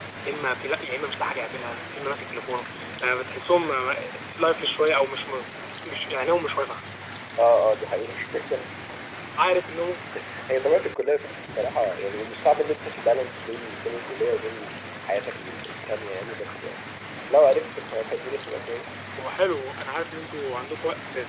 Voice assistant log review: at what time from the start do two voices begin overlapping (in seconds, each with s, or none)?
none